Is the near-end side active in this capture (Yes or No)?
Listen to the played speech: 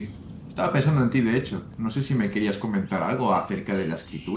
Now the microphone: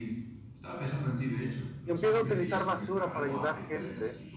Yes